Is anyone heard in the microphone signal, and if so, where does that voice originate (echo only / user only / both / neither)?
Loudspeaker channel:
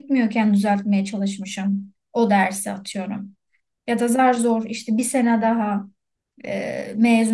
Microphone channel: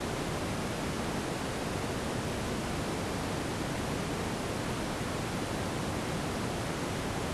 neither